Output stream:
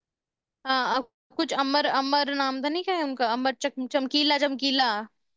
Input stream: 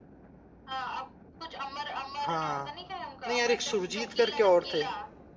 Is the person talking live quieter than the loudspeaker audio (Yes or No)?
No